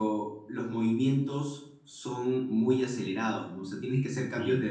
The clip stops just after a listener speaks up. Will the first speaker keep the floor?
Yes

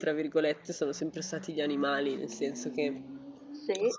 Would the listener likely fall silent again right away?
Yes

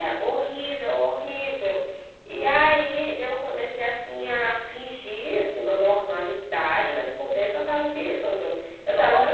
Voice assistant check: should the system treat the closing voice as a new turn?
No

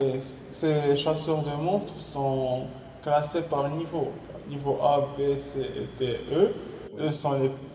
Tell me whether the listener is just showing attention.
Yes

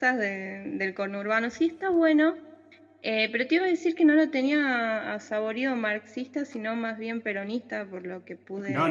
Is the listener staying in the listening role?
No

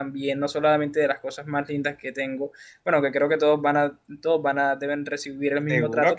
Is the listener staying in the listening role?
No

